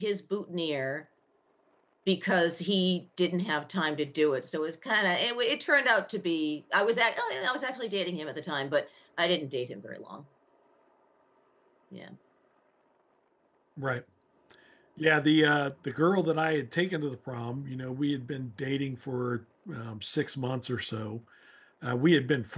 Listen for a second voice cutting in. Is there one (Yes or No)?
No